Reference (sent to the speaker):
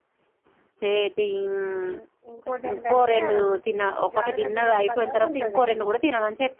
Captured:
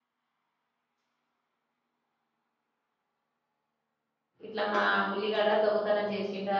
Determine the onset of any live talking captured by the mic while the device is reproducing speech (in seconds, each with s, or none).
4.5 s